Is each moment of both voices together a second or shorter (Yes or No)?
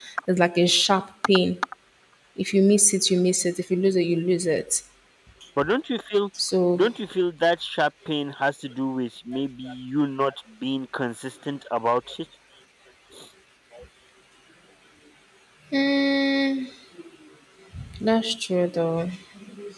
Yes